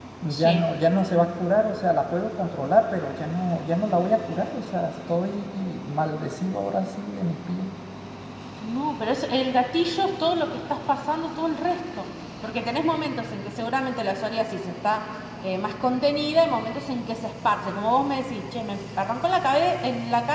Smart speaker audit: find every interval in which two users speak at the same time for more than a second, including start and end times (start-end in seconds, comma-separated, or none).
none